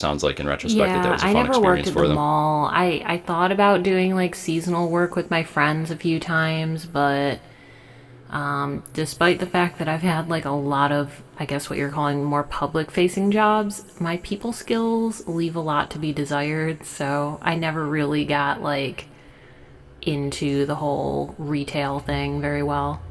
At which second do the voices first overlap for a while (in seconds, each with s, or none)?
0.6 s